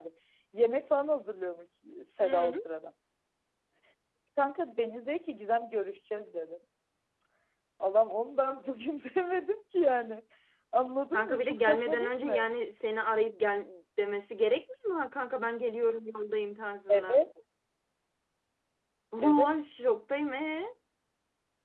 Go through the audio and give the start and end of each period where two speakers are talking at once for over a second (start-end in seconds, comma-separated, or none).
11.1-12.5